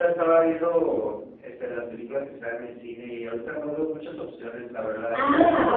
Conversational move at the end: taking over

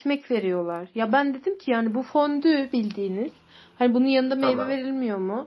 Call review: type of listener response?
listening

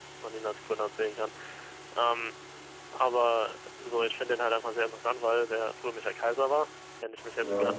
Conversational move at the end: listening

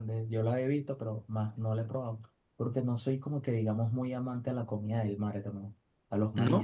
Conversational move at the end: listening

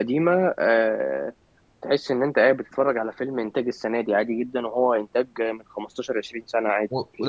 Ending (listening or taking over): taking over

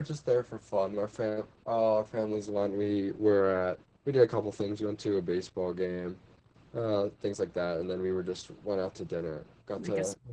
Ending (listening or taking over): listening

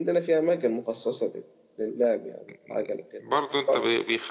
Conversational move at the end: taking over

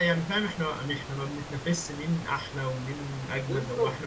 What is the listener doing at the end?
listening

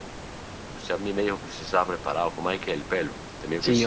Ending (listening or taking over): taking over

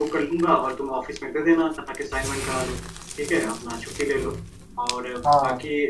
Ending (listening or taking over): listening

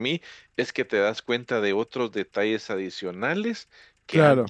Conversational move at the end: listening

